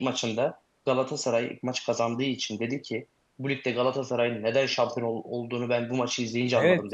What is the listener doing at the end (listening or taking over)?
taking over